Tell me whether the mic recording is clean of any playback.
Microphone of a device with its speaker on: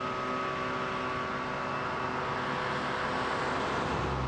Yes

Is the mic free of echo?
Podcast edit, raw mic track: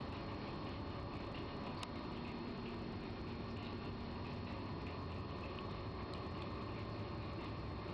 Yes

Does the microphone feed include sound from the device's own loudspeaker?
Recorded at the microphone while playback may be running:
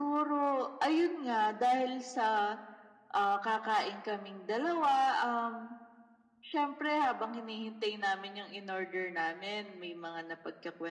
Yes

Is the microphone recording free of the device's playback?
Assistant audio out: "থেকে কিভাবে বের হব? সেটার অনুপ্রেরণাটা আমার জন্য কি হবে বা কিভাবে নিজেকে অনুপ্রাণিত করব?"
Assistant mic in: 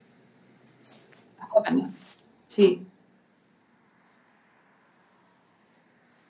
Yes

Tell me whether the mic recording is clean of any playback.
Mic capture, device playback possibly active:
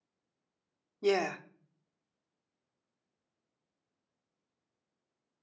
Yes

